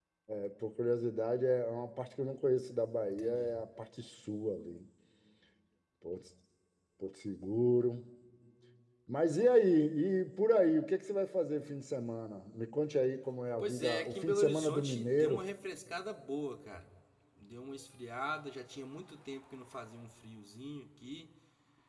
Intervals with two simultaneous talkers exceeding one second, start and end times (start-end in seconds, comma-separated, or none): 13.6-15.4